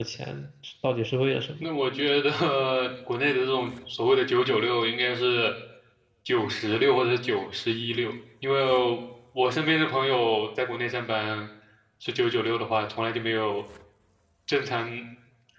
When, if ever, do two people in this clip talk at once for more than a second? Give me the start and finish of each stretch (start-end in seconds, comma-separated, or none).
none